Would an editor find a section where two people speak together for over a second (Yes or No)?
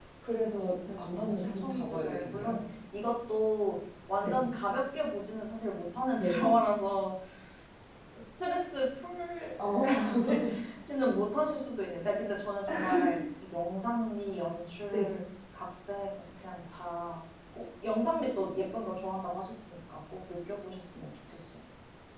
Yes